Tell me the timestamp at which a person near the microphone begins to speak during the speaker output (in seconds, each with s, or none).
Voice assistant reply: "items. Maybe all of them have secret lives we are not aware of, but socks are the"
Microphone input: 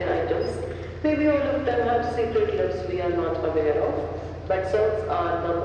none